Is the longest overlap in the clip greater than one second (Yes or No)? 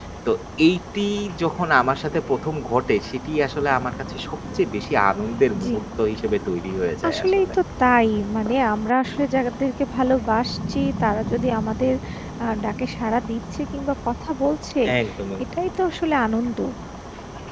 No